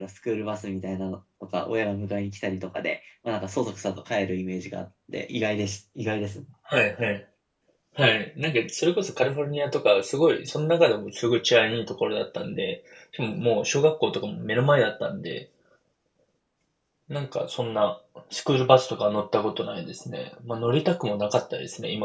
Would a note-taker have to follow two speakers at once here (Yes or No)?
No